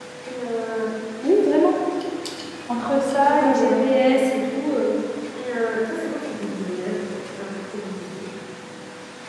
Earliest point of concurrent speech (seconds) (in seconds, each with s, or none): 3.2 s